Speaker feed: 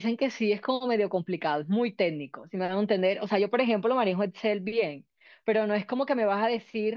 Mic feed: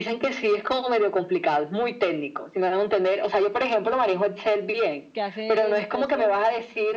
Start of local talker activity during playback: 5.1 s

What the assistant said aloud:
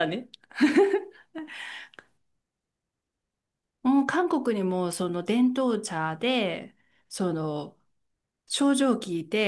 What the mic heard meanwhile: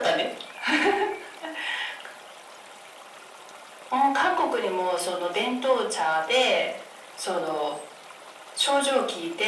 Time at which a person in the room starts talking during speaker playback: none

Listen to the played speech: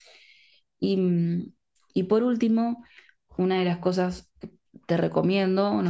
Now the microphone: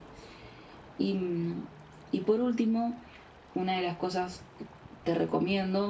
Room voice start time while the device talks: none

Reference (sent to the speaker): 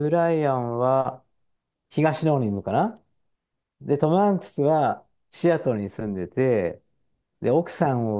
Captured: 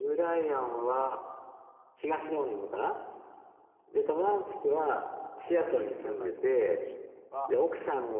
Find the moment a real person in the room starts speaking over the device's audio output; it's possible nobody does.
5.4 s

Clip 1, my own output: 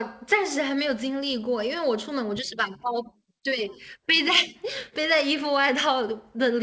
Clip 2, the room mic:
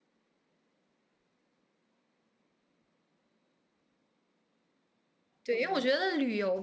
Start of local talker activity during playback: 5.4 s

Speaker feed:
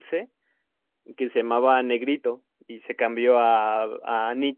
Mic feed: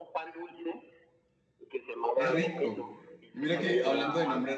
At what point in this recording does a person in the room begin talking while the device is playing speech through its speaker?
2.1 s

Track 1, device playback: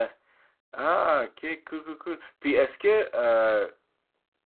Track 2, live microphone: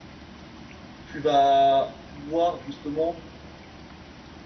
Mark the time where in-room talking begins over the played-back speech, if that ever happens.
1.0 s

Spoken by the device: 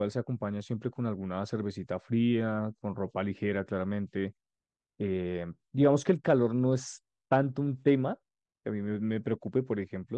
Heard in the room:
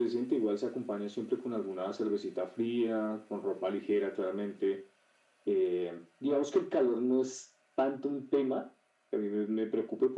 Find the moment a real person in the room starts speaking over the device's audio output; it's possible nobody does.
none

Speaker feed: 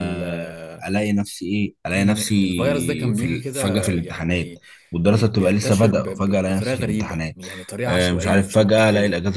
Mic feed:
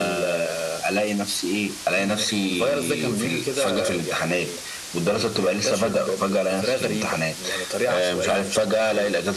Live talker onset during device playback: none

